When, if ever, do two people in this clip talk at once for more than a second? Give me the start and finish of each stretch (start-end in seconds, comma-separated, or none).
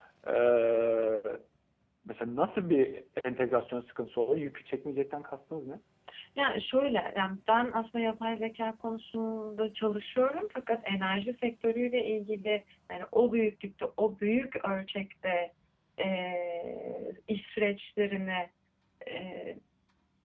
none